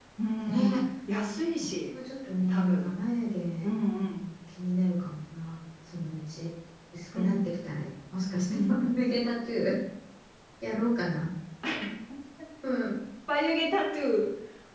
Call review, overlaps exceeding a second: none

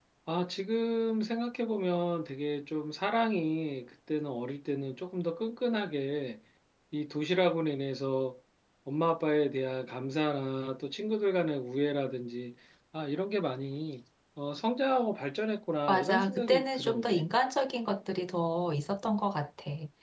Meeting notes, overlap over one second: present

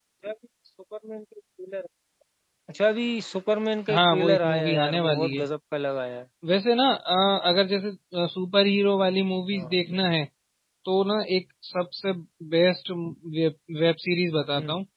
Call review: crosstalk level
present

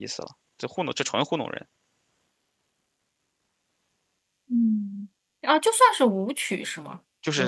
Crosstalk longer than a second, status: none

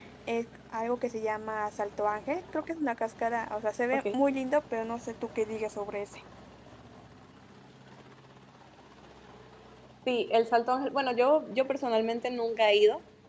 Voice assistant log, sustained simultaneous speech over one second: none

